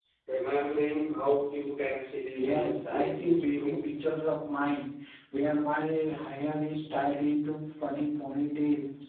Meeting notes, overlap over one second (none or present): present